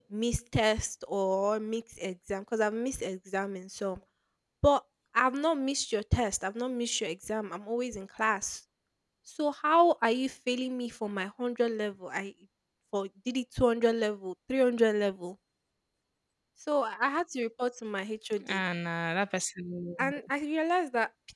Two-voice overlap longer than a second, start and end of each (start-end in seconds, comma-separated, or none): none